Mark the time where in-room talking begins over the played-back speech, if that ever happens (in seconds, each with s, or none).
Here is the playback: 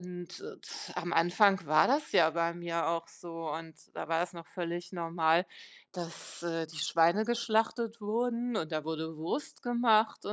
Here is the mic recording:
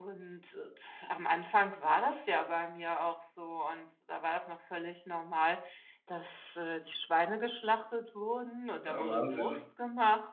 8.8 s